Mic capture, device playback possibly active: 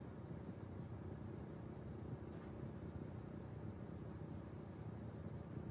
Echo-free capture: Yes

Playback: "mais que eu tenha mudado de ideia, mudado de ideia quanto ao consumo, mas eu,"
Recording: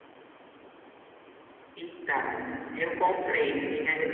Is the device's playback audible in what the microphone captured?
No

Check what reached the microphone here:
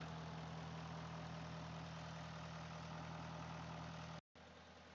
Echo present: No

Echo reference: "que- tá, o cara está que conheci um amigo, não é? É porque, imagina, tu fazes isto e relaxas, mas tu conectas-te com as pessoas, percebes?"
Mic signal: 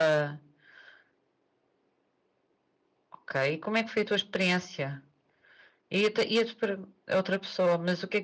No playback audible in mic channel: Yes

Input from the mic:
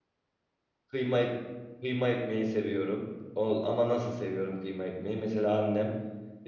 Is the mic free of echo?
Yes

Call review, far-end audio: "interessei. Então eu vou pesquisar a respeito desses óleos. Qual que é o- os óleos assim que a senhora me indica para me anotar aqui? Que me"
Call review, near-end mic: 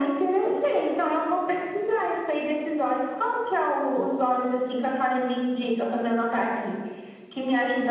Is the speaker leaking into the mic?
Yes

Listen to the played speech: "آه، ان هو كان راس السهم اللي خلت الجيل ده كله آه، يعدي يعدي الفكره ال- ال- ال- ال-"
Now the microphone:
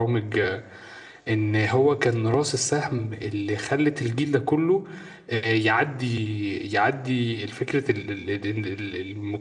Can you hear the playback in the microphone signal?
Yes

